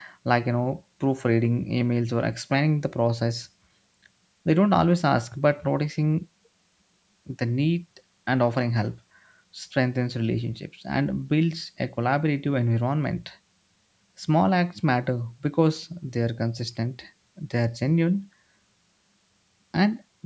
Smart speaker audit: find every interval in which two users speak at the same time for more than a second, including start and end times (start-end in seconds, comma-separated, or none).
none